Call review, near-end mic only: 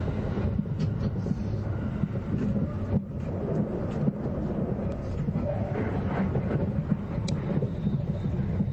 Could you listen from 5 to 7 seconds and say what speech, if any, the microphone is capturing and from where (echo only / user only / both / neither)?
neither